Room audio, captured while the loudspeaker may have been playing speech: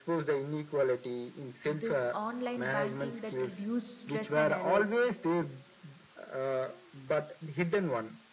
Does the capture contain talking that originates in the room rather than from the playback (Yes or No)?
Yes